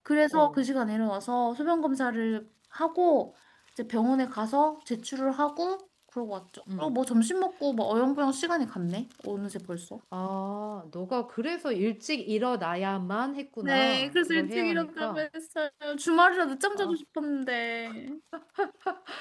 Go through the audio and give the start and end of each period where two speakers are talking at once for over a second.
13.6-15.2

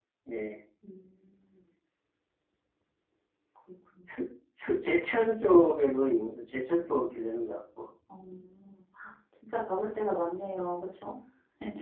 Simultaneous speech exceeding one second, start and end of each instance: none

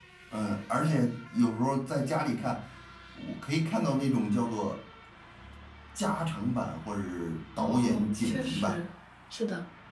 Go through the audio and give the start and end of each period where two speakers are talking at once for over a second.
7.6-8.8

